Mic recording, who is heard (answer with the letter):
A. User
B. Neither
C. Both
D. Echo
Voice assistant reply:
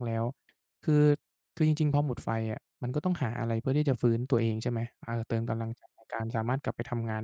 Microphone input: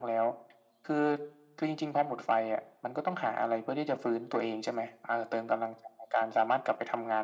D